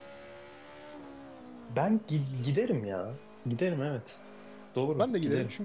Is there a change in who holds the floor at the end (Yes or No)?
Yes